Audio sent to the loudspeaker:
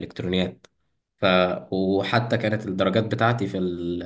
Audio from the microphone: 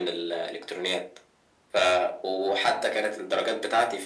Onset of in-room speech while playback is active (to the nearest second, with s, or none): none